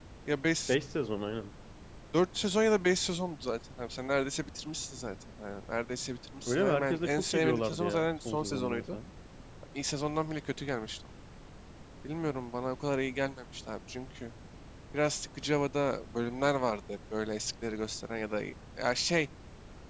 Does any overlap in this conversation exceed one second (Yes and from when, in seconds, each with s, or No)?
Yes, from 6.4 s